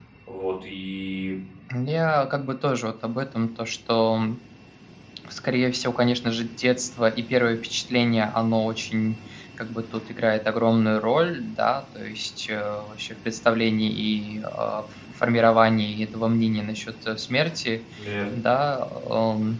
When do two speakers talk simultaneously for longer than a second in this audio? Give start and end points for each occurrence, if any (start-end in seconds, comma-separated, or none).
none